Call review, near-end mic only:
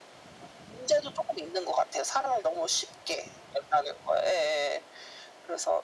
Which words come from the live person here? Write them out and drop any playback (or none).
none